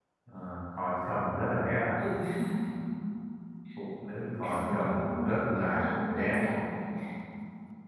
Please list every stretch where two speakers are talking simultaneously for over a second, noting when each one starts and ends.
4.4-6.3

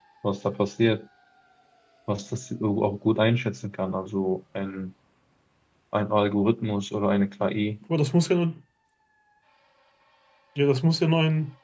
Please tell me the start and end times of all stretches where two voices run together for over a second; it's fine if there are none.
none

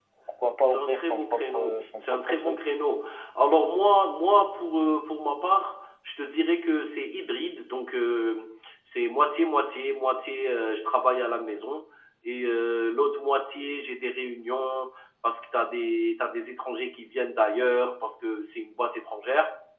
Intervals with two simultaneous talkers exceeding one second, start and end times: 0.7-2.6

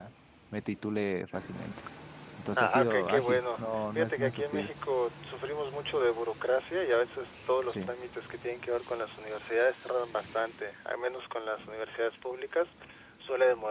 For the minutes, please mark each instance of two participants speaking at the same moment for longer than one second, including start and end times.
2.6-4.7

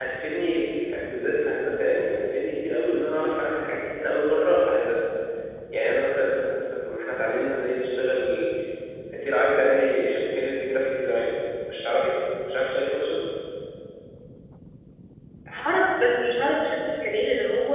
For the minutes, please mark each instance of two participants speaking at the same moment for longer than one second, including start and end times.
none

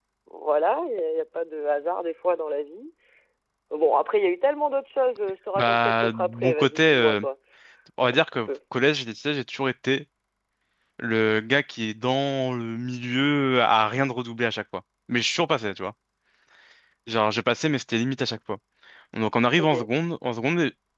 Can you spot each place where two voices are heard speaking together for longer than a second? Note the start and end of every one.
5.6-7.2

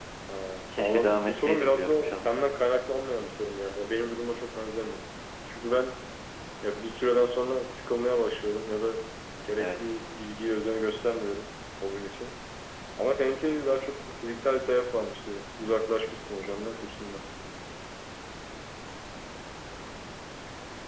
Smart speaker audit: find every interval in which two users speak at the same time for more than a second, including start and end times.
0.8-2.3

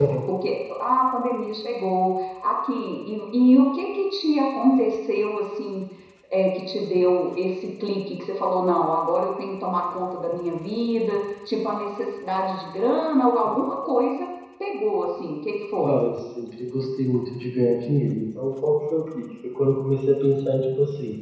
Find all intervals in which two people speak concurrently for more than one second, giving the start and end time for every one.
none

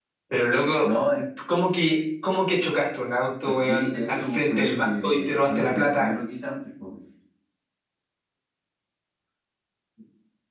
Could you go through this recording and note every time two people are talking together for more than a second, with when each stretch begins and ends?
3.5-6.1

